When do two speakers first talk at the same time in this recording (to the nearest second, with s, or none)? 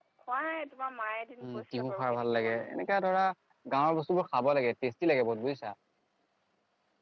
1 s